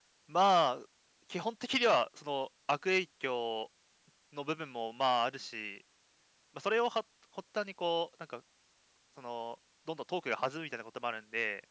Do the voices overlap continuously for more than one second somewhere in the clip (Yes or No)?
No